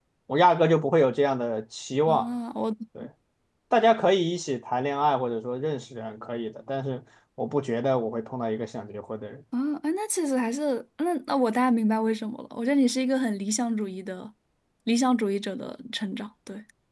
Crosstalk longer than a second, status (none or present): none